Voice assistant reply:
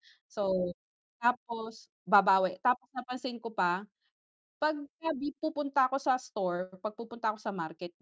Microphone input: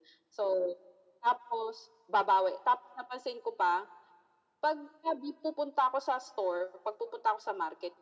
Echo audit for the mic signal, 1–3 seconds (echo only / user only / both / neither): echo only